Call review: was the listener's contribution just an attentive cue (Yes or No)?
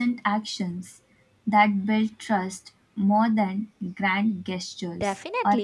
No